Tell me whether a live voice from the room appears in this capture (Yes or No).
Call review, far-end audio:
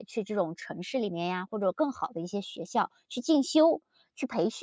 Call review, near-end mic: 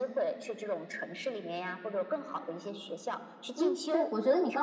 Yes